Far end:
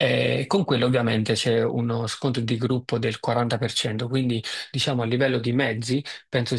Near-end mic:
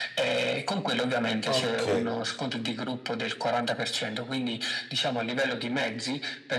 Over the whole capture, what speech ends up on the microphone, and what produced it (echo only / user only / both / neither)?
both